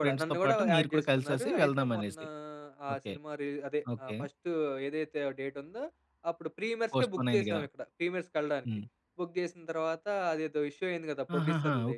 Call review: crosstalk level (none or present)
present